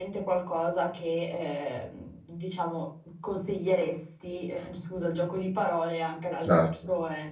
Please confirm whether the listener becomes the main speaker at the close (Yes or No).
Yes